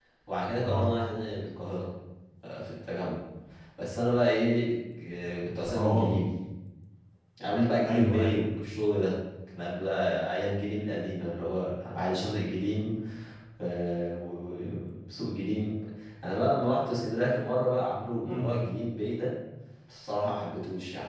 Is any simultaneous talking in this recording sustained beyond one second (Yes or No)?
No